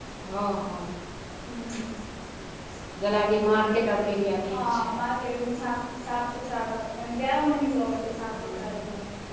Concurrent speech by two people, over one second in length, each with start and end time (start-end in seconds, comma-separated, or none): none